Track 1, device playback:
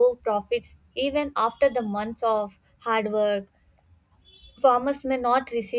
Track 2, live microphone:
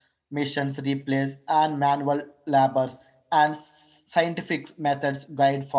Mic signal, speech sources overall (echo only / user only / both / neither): user only